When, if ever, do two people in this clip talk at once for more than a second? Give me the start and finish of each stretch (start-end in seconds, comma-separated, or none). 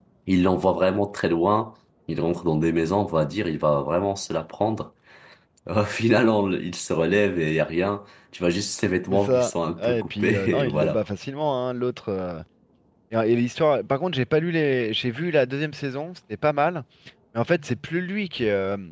9.1-11.0